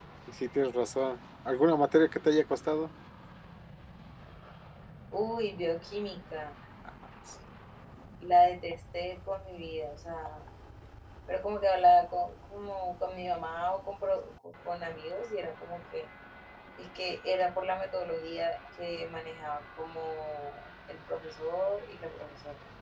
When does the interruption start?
none

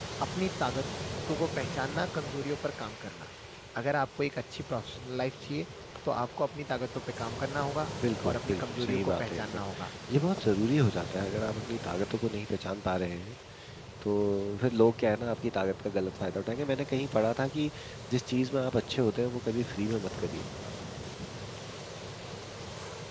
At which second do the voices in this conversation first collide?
8 s

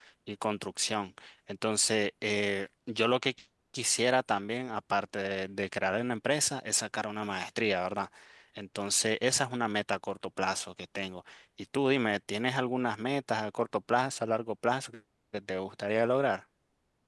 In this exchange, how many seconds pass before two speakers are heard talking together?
none

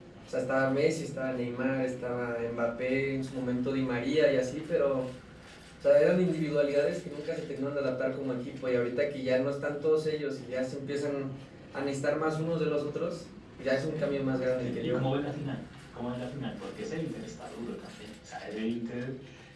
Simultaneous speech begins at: 14 s

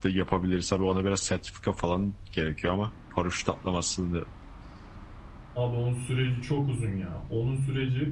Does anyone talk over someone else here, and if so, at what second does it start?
none

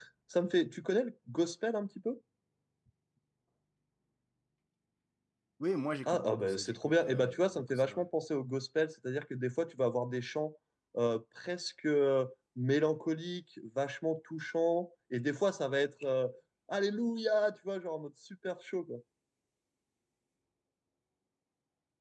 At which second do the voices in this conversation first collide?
6 s

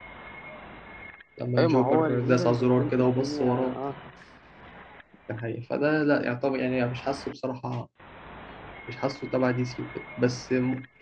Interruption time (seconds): 2 s

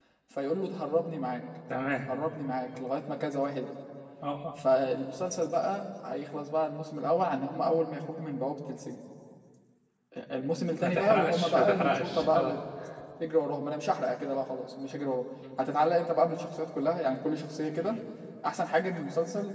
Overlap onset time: 11 s

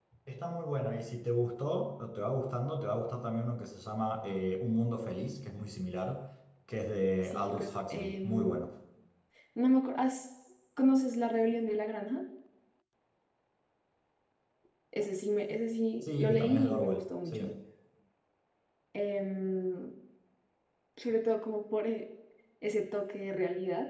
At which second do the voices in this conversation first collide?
7 s

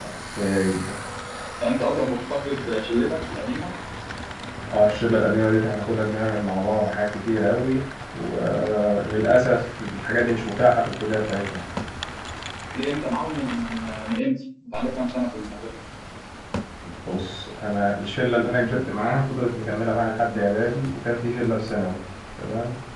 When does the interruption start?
none

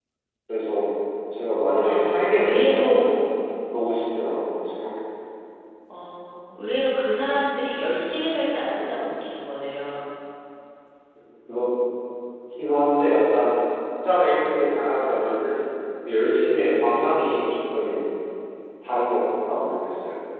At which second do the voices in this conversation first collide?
2 s

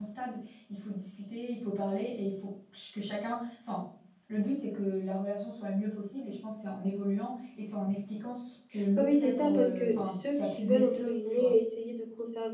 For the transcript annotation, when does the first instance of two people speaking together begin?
9 s

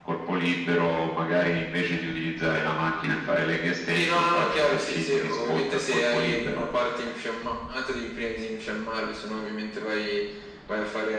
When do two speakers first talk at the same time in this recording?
4 s

